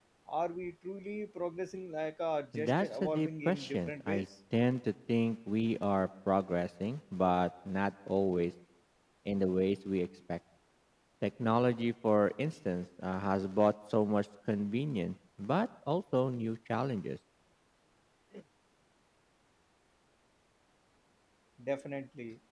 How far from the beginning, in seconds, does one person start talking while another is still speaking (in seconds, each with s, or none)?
2.5 s